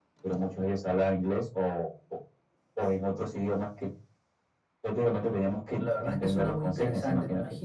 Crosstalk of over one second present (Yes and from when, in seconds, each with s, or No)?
Yes, from 5.8 s